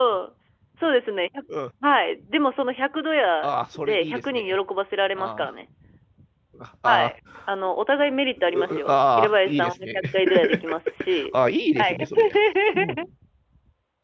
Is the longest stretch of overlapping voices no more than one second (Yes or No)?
No